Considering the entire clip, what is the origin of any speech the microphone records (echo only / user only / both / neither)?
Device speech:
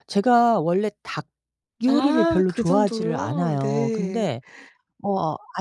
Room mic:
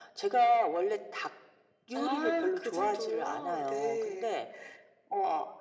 echo only